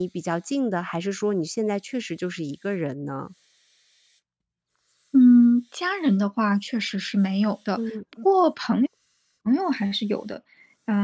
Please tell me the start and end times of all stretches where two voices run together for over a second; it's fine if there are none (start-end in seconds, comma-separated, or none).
none